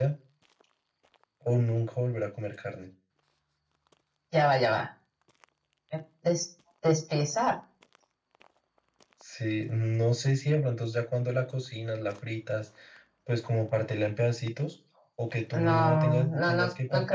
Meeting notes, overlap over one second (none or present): present